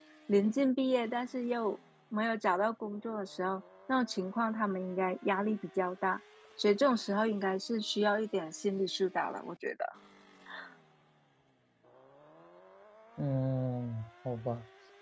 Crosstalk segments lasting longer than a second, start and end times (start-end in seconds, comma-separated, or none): none